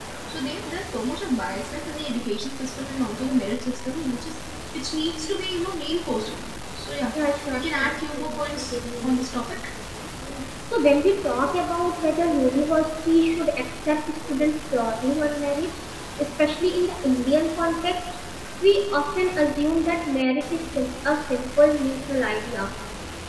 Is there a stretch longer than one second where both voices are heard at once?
Yes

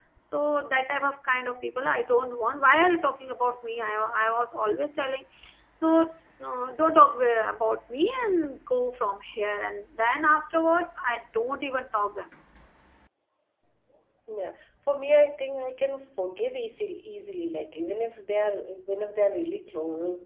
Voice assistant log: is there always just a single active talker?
Yes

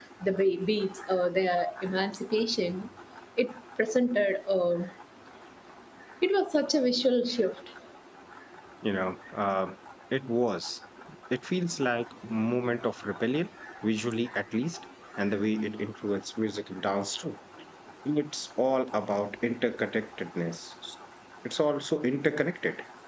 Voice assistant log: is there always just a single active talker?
Yes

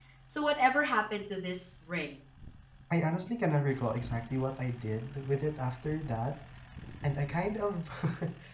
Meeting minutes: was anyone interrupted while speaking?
No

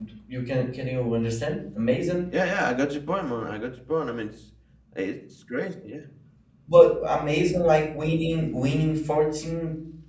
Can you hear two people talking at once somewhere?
No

